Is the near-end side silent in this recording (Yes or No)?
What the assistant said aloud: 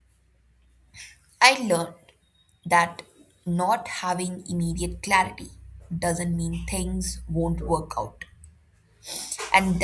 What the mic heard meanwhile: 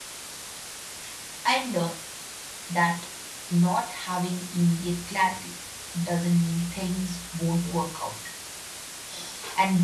Yes